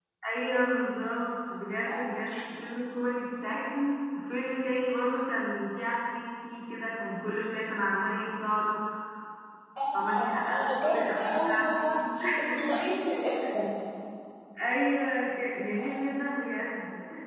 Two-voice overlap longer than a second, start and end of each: 9.9-11.8

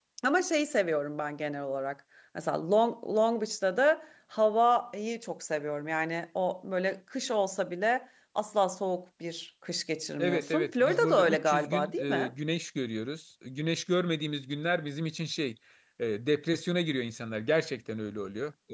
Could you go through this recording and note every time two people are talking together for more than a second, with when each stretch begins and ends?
10.2-12.3

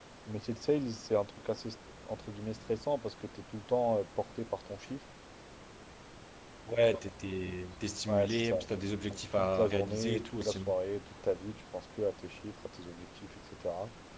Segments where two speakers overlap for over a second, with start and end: 9.1-10.6

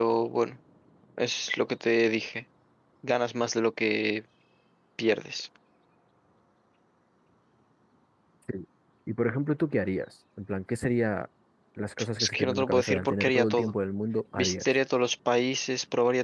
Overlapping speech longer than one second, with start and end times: 12.2-13.7

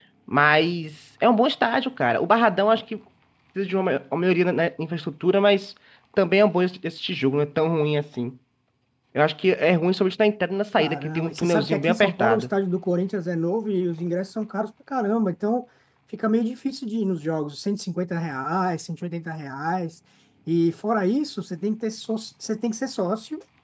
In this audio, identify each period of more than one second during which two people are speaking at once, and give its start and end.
10.8-12.5

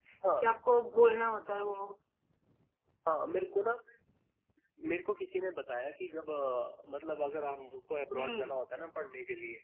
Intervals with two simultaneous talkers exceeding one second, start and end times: none

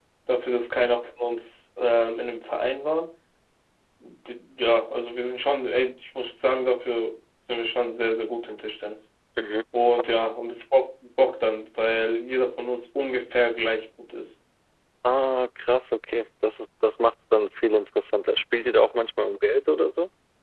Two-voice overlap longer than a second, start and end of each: none

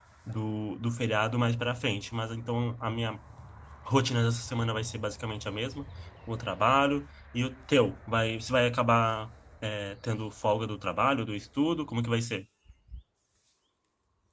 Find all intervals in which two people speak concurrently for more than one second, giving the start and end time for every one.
none

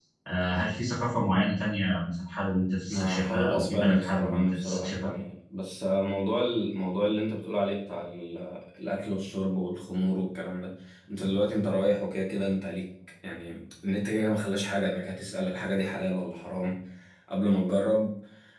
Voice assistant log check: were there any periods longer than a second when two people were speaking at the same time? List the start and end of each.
2.9-5.1

